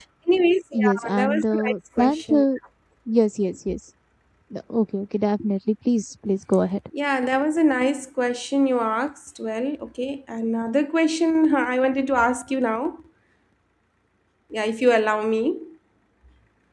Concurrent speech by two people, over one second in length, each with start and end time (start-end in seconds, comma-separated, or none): 0.7-2.4